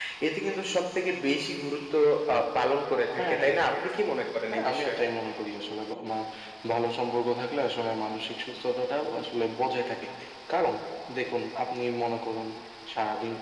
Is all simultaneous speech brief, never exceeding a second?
Yes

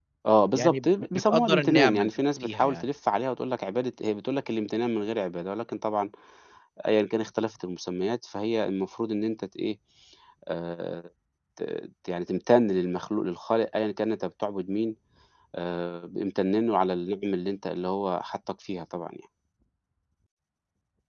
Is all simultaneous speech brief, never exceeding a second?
No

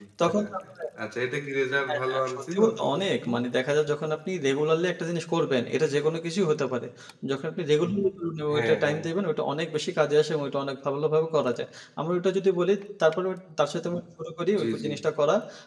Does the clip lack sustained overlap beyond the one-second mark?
No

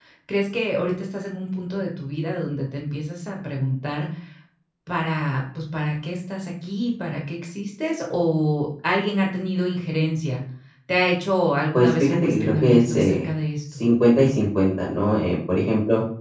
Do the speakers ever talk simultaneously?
Yes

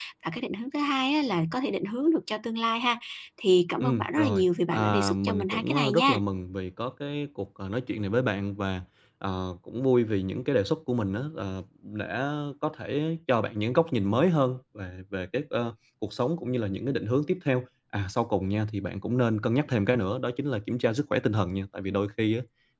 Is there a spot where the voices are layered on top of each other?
Yes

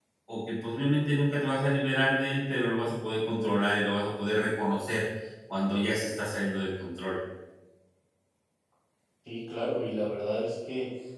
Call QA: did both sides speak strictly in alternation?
Yes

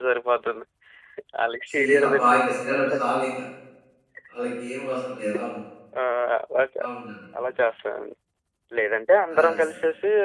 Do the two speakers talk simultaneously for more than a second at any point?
Yes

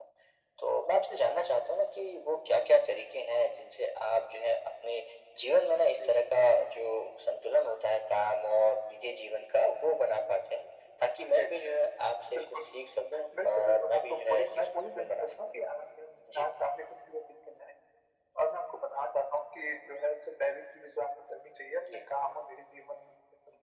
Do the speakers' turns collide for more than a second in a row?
Yes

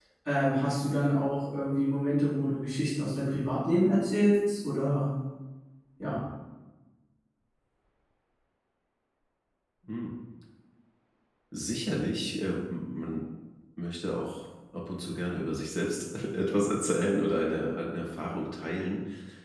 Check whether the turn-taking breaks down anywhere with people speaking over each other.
No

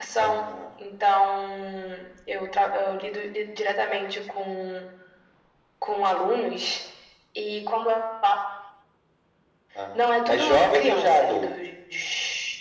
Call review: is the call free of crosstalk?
No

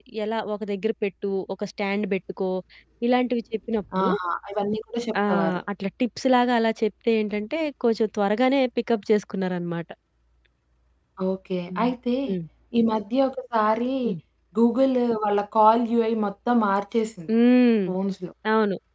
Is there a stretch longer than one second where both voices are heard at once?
No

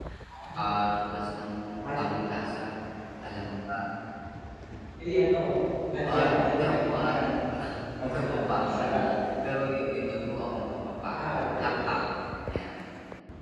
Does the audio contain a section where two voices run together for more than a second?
Yes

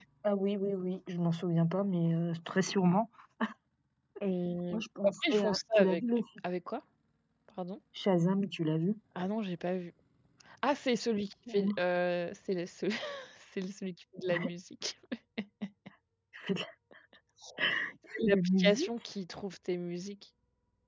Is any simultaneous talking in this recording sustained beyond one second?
Yes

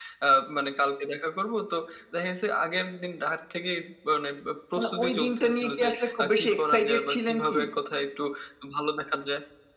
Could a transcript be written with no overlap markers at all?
No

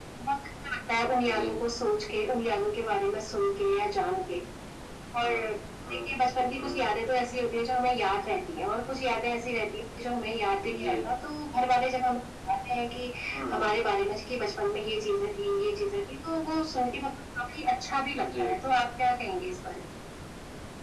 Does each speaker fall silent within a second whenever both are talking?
Yes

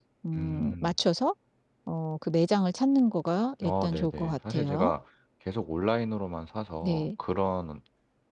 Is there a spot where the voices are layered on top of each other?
Yes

